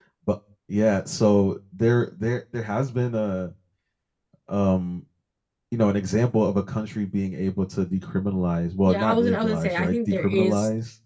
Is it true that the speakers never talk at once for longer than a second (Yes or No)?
No